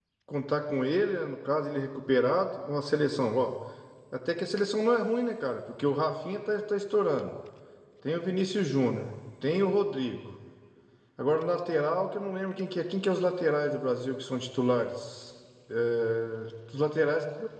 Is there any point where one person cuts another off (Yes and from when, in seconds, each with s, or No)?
No